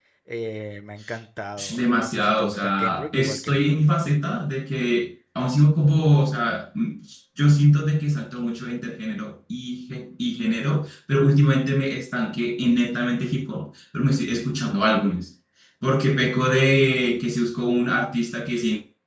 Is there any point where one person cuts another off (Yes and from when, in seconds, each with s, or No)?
Yes, from 1.6 s